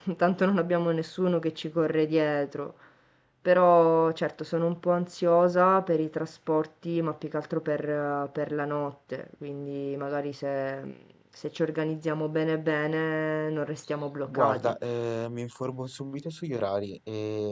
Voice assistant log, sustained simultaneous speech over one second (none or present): none